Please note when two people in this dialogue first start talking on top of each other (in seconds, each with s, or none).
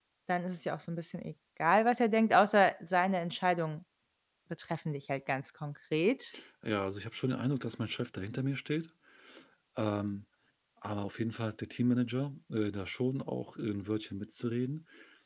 none